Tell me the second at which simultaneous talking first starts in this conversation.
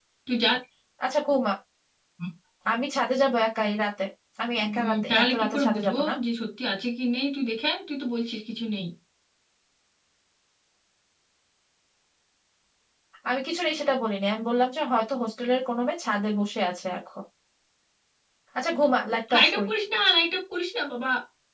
4.8 s

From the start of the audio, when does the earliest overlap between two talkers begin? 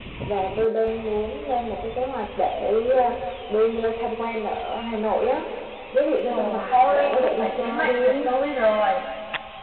6.2 s

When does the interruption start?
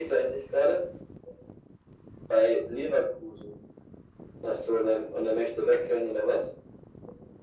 none

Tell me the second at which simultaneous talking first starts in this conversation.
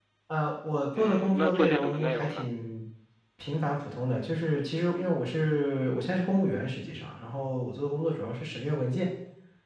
1.0 s

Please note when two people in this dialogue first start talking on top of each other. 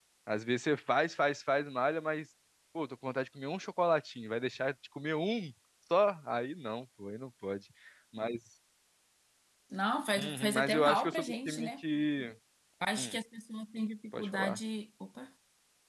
10.2 s

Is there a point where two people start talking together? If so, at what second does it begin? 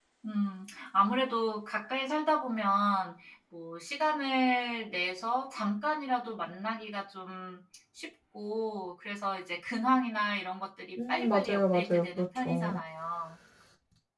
11.0 s

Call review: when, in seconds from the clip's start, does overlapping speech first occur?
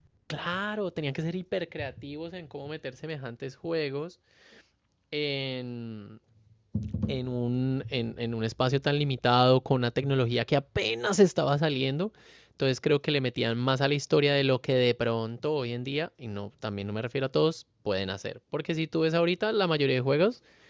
none

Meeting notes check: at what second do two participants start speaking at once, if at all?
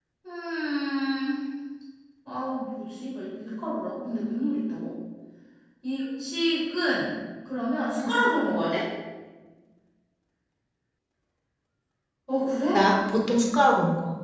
none

